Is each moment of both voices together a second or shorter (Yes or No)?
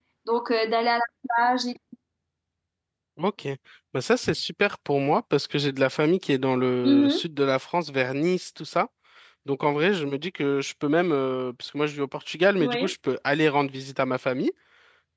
Yes